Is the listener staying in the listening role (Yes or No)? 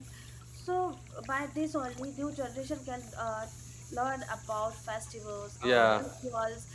Yes